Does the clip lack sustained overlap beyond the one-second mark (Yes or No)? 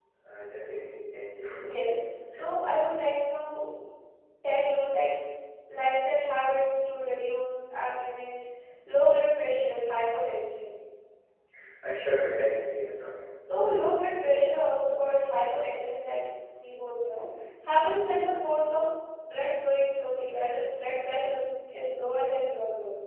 Yes